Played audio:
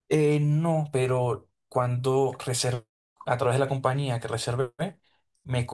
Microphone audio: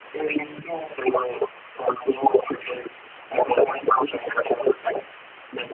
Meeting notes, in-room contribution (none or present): none